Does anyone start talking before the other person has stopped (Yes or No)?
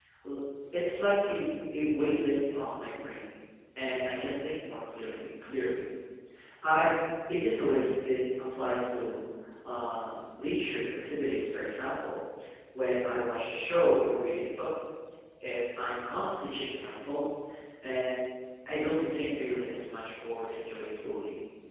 No